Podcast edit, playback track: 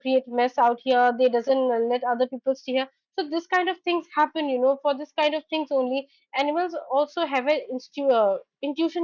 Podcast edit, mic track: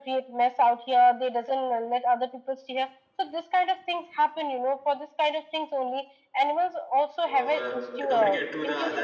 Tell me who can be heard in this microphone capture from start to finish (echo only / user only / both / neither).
both